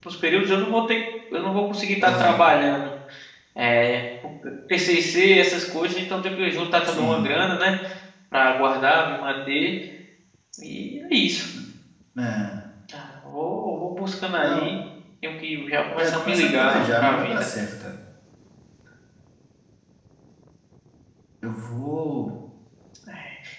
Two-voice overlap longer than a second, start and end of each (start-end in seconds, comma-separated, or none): 16.0-17.5